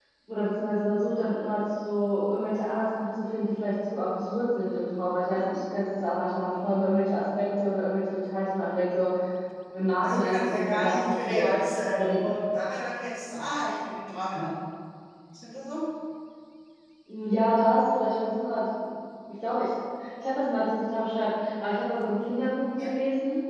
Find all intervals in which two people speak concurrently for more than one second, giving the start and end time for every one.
10.0-11.5

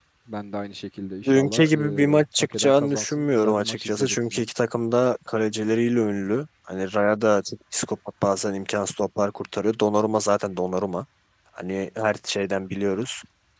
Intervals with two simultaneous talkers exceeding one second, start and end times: 1.3-4.4

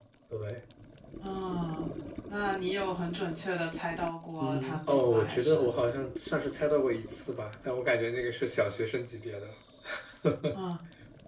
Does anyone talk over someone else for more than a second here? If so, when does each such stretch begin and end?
4.4-5.7

